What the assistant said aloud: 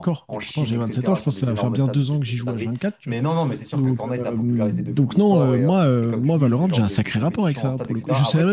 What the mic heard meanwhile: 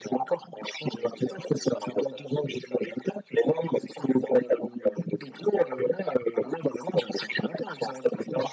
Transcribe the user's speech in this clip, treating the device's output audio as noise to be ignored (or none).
none